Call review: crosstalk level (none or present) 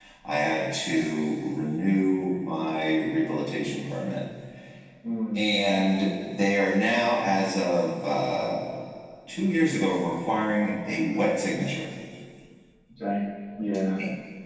none